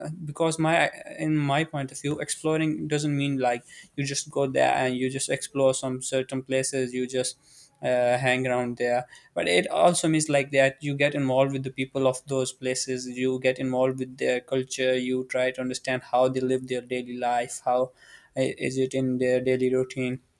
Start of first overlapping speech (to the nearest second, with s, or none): none